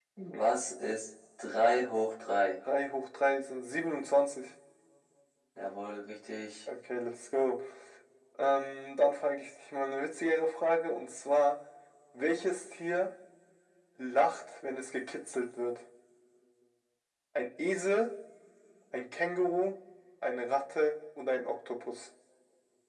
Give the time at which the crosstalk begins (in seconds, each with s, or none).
none